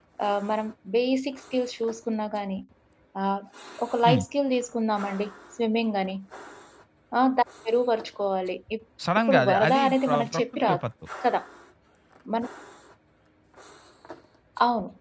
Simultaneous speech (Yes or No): Yes